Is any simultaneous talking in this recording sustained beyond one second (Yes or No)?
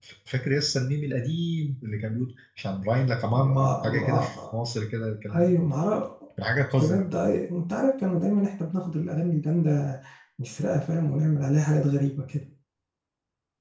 Yes